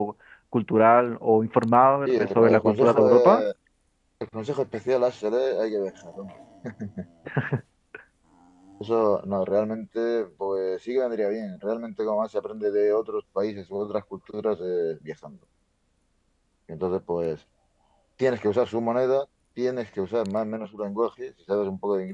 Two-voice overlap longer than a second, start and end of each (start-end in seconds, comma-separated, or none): 2.1-3.4